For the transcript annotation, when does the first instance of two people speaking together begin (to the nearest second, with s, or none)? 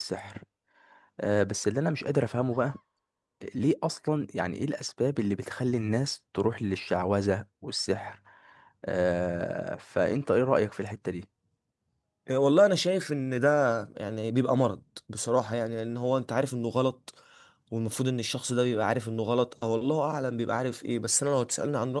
none